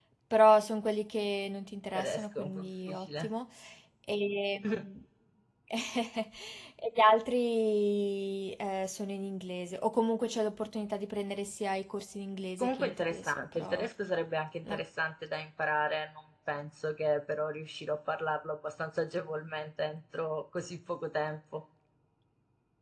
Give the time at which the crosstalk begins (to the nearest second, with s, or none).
2 s